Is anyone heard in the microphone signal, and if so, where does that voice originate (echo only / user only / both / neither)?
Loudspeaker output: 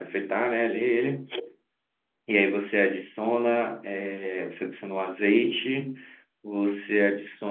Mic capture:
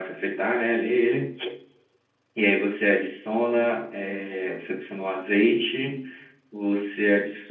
echo only